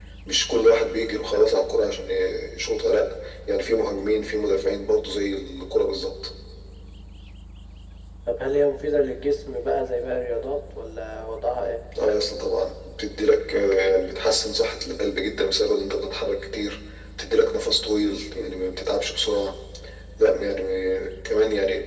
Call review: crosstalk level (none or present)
none